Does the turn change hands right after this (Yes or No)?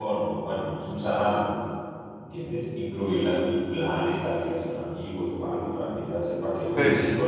No